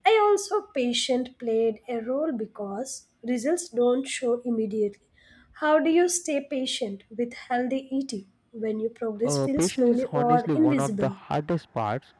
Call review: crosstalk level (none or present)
present